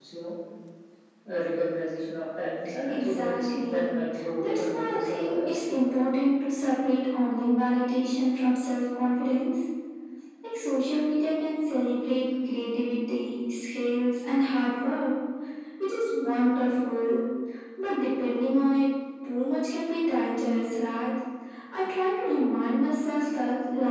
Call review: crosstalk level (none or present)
present